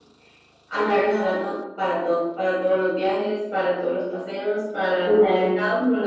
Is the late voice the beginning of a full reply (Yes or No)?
No